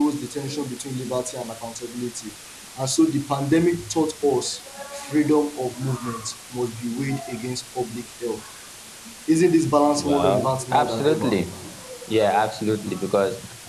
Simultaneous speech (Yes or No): Yes